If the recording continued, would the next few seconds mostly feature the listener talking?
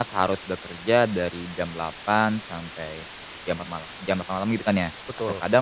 No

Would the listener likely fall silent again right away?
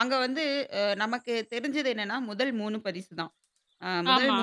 Yes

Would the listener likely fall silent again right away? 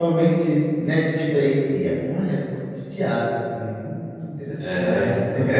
No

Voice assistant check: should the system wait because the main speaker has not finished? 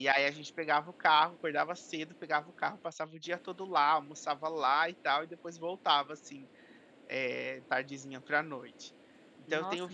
No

